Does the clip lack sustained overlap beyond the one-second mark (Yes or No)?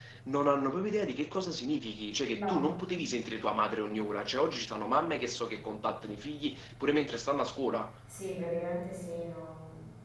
Yes